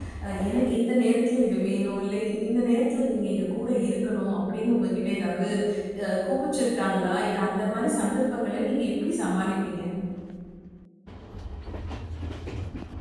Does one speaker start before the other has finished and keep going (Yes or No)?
No